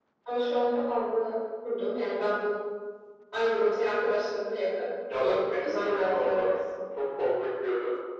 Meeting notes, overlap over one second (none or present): present